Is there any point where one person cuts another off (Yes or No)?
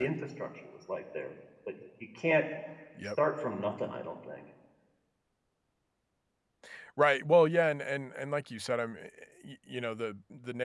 No